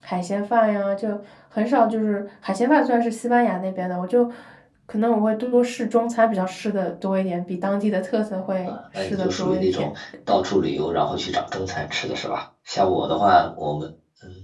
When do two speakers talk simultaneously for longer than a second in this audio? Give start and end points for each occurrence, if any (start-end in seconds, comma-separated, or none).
8.6-9.9